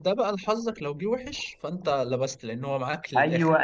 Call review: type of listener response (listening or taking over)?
taking over